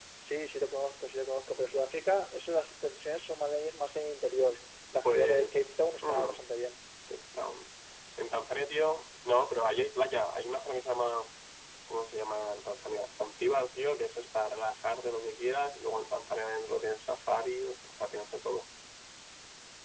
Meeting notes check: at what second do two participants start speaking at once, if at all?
5 s

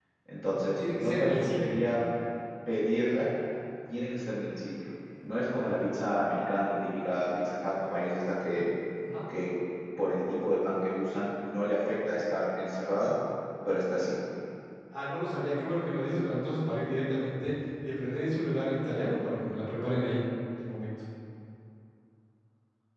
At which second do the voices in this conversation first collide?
1 s

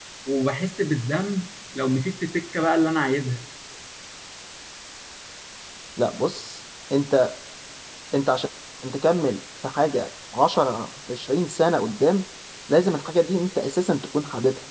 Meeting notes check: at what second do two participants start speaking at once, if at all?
none

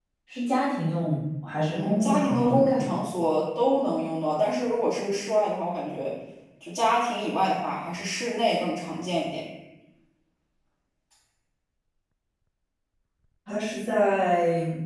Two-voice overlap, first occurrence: 2 s

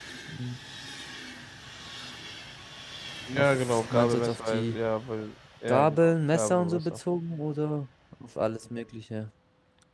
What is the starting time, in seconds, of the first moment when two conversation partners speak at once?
3 s

